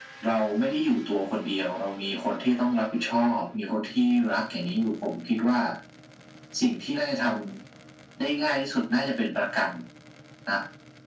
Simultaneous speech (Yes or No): No